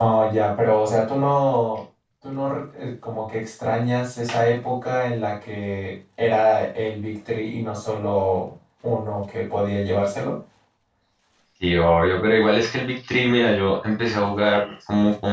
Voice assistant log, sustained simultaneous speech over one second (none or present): none